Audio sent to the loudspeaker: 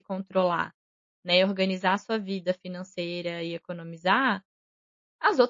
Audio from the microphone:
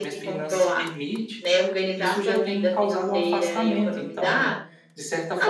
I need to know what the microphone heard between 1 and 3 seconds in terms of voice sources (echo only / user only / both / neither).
both